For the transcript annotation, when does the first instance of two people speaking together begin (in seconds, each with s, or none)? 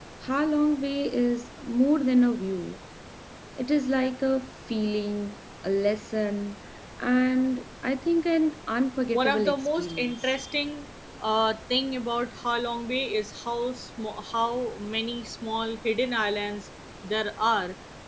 9.1 s